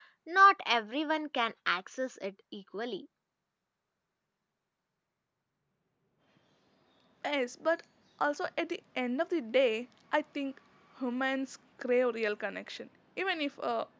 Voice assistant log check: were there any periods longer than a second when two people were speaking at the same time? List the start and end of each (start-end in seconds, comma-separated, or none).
none